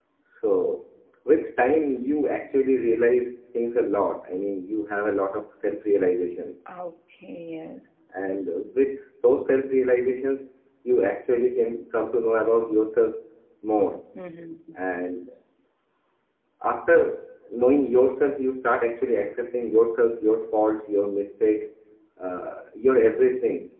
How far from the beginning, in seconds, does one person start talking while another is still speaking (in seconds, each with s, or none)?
none